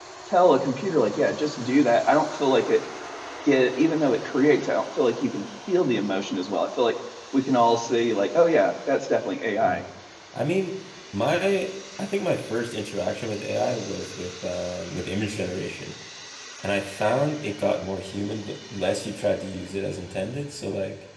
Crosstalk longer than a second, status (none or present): none